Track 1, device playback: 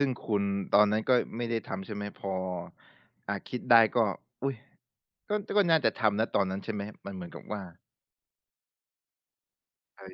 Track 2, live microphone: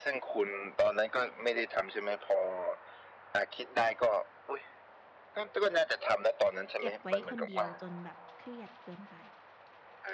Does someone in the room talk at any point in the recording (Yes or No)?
Yes